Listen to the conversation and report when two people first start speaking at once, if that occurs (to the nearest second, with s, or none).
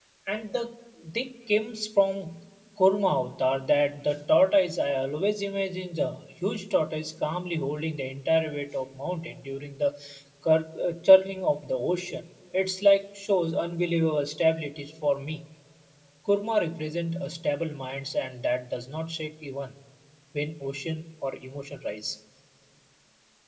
none